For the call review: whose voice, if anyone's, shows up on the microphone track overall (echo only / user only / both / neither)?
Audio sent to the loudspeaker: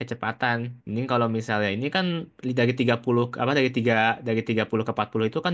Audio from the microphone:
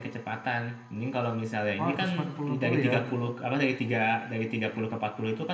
both